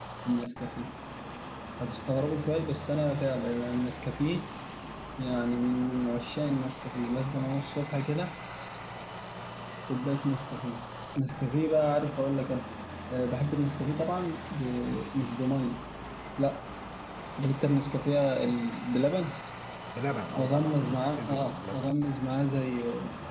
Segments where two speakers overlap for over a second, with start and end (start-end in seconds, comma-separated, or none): 20.4-21.9